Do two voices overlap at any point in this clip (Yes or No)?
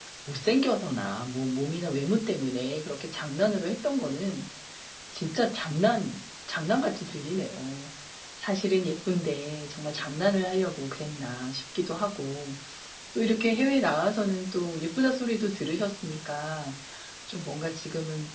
No